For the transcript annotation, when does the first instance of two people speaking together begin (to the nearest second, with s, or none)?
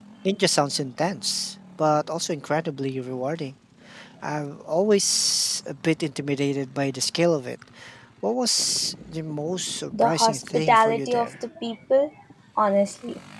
10 s